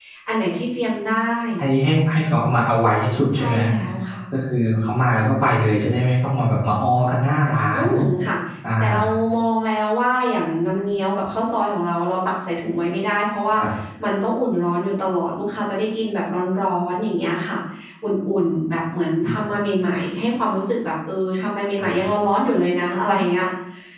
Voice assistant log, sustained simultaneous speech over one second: none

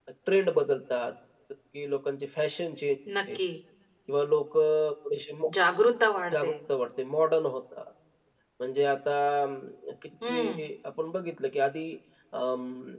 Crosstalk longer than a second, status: none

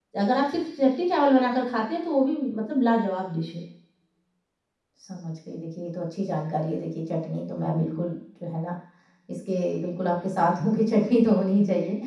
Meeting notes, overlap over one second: none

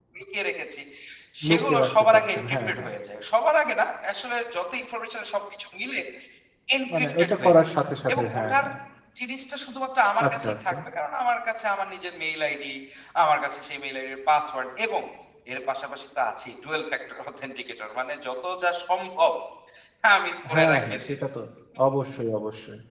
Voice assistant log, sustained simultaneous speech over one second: present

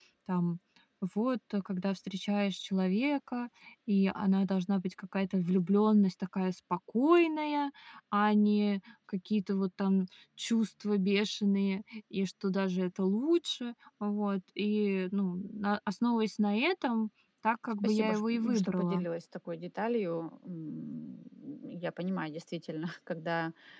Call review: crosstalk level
present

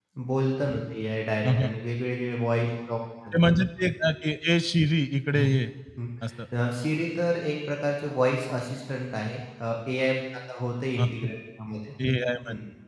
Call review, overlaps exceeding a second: none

